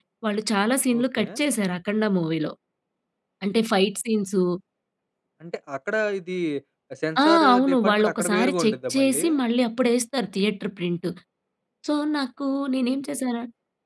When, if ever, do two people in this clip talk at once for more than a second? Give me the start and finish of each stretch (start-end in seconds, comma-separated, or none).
7.2-9.2